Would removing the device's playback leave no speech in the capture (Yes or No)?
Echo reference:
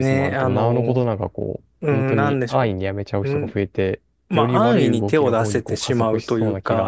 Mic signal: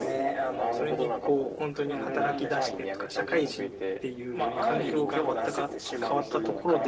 No